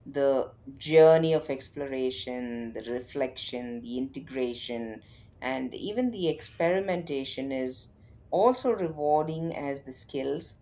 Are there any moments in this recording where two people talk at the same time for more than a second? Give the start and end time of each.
none

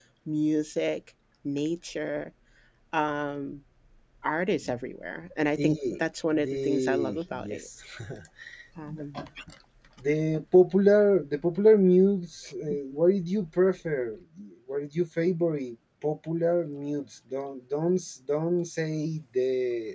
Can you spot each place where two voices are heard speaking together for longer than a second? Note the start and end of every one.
6.4-7.7

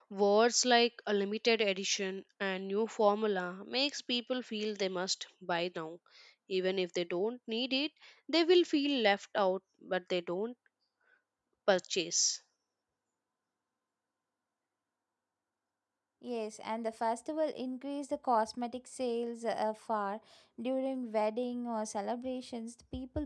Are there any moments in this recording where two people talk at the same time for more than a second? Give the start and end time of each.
none

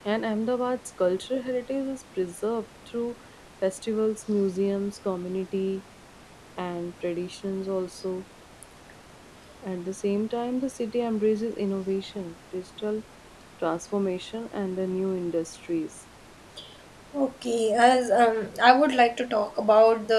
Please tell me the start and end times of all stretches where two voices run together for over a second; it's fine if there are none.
none

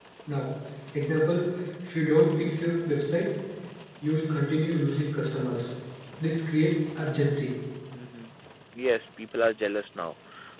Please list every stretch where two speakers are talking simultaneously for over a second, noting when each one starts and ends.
none

